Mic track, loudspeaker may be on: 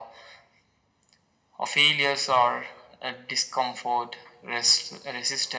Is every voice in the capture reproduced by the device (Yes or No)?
Yes